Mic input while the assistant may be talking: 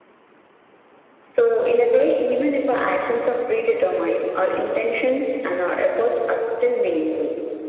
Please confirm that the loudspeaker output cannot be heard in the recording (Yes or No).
No